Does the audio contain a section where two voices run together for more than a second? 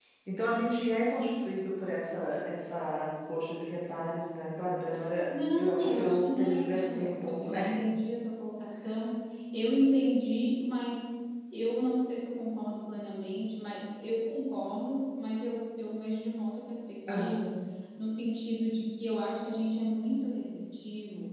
Yes, from 5.6 s

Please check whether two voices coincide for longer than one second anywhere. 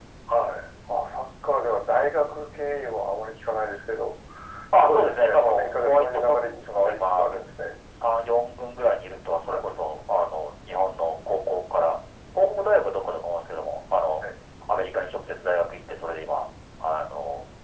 Yes, from 4.7 s

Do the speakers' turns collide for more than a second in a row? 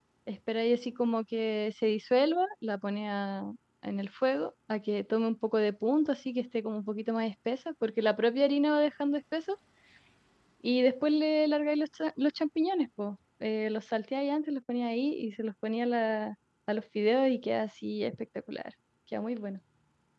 No

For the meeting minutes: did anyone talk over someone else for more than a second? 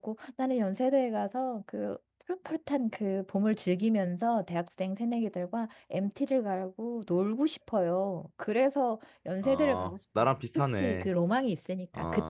Yes, from 9.4 s

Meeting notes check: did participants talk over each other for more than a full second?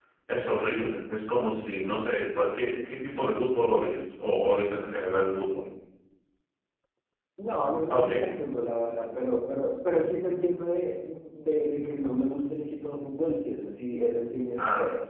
No

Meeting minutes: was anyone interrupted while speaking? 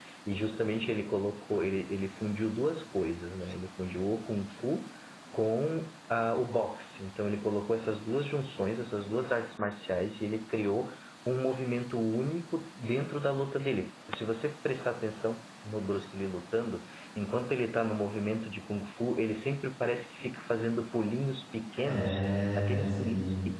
Yes, from 21.8 s

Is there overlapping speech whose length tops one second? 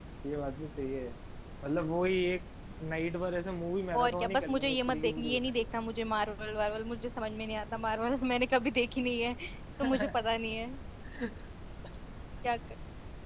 Yes, from 4.0 s

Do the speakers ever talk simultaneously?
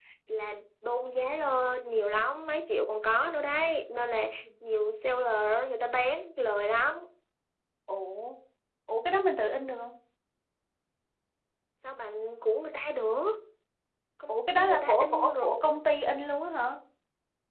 Yes, from 14.3 s

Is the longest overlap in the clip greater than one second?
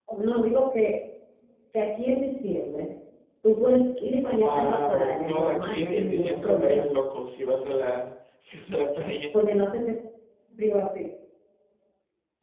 Yes, from 4.3 s

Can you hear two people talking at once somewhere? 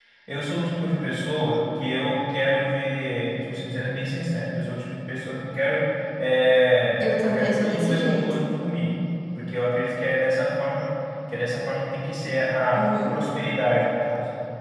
Yes, from 7.0 s

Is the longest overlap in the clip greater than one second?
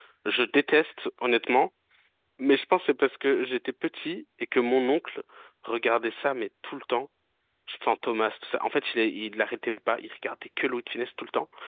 No

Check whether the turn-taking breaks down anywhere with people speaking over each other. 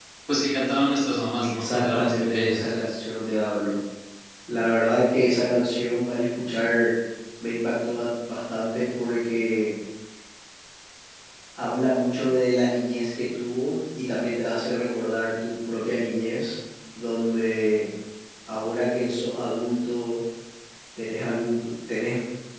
Yes, from 1.4 s

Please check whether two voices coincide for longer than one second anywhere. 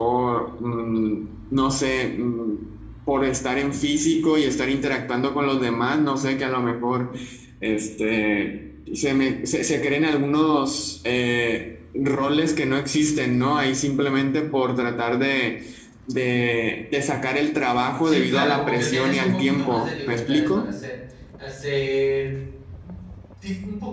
Yes, from 18.0 s

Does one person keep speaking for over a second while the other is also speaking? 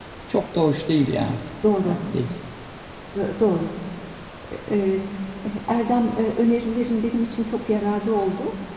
No

